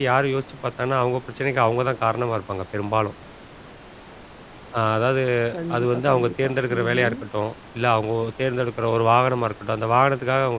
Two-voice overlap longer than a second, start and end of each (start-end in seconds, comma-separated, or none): 5.8-7.1